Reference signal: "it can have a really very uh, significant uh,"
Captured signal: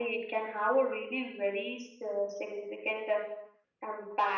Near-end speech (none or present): none